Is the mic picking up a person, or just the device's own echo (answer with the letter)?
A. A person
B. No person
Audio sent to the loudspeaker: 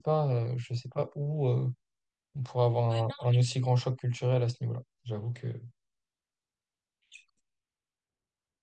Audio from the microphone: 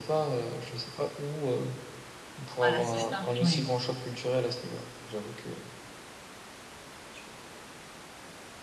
A